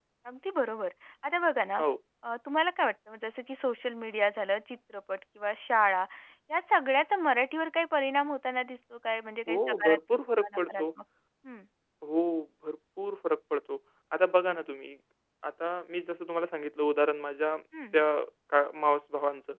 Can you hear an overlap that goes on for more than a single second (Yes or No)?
Yes